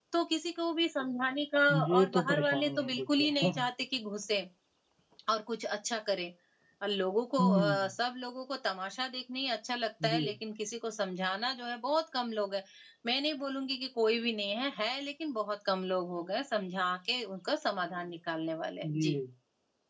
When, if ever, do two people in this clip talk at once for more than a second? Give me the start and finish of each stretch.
1.9-3.5

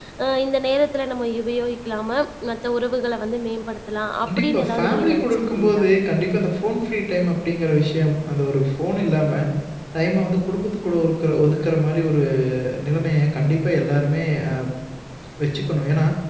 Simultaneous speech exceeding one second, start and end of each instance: 4.2-5.8

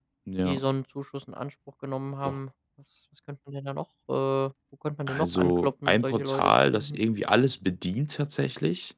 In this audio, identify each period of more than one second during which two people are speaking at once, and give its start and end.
5.1-7.0

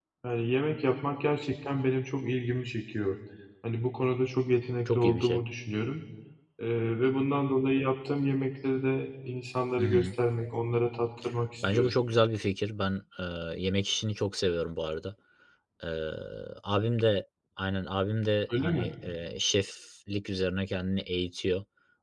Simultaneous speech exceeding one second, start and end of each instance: none

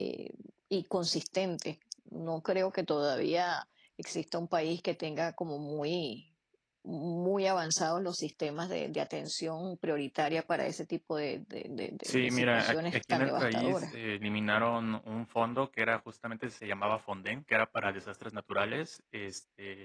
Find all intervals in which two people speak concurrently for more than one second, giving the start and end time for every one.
12.1-13.9

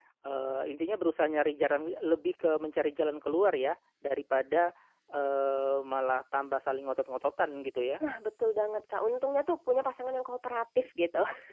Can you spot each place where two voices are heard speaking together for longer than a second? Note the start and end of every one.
none

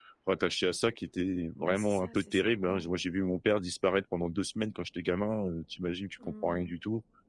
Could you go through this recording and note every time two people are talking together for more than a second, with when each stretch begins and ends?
1.6-2.9

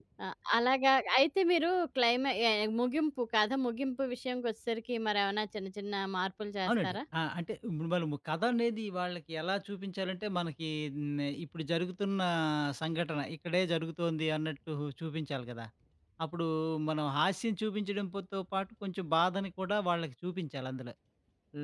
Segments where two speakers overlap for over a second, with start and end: none

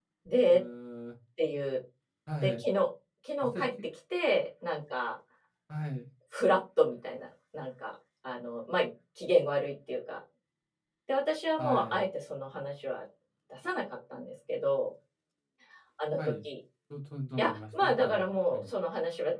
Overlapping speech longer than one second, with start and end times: 17.4-18.7

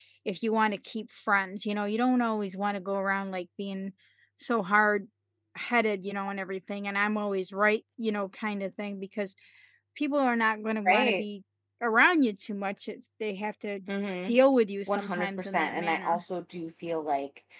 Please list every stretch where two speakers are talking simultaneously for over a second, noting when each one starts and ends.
14.9-16.2

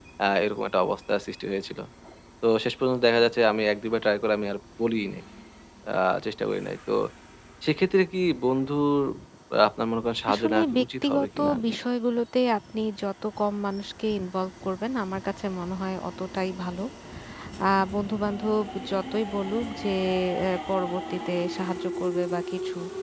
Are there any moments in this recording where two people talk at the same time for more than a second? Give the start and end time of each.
10.3-11.5

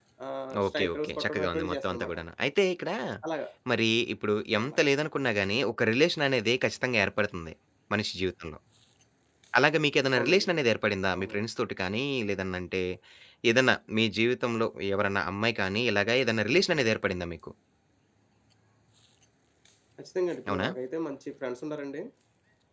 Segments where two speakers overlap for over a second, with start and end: 0.6-2.2

